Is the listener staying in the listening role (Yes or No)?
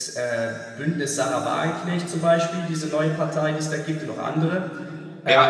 No